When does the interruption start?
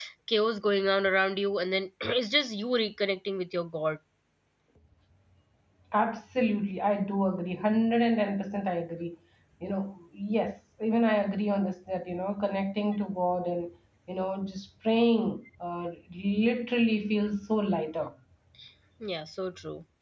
none

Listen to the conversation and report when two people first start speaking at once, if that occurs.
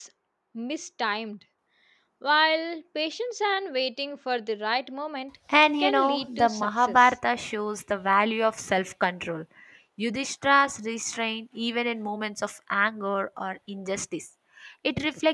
6 s

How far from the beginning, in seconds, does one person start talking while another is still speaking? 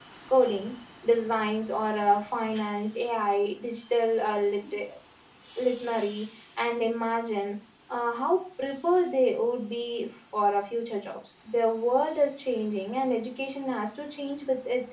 none

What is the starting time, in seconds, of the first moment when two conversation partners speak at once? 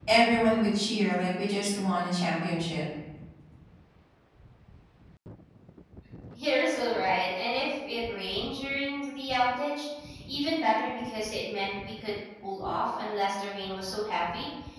none

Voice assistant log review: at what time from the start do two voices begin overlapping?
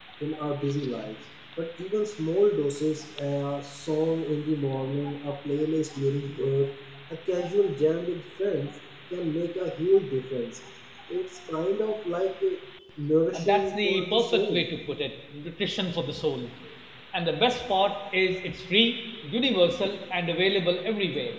13 s

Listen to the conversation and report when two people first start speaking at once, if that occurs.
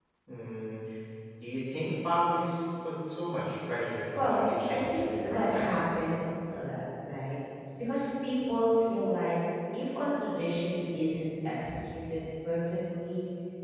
4 s

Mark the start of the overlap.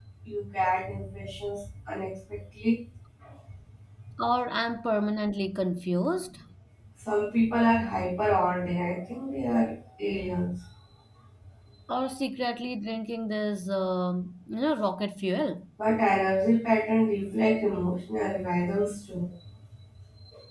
none

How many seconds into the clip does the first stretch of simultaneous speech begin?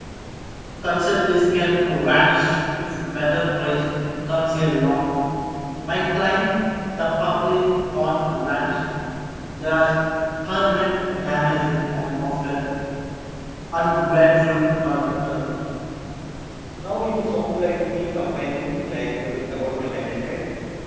none

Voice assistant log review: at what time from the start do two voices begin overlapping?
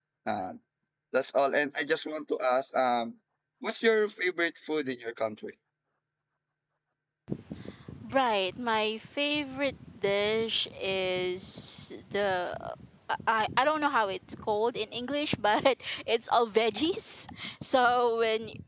none

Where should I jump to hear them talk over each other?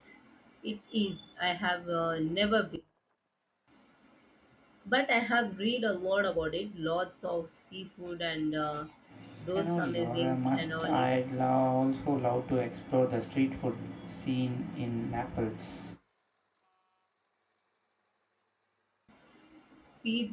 10 s

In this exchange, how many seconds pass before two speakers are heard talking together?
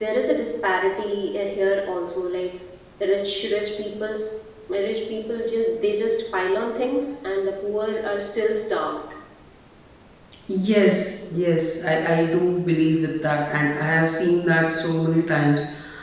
none

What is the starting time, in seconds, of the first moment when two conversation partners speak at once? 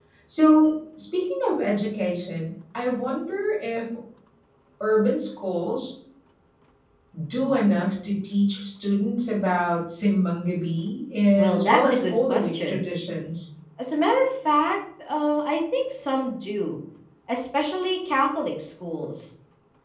11 s

